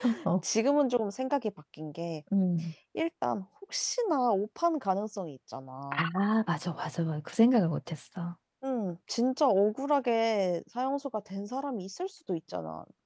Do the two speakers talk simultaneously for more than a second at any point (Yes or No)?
No